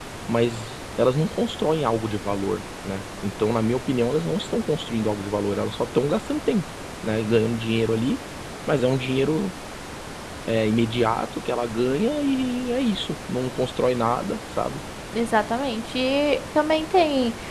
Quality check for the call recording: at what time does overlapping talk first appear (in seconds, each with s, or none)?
none